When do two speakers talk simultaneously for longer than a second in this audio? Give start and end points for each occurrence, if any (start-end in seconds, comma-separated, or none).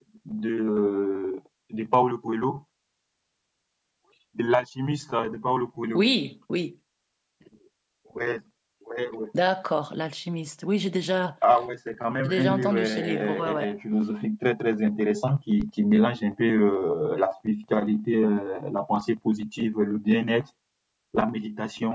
12.2-13.7